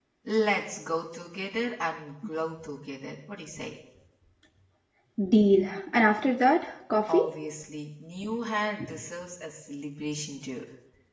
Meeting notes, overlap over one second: none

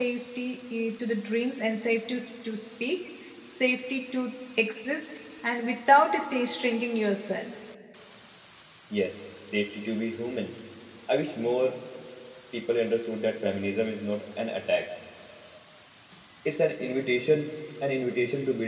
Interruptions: none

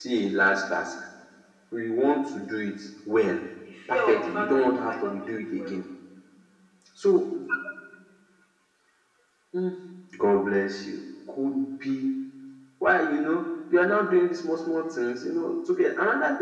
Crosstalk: present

